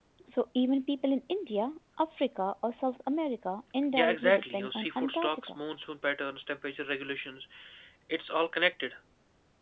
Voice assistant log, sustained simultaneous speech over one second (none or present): present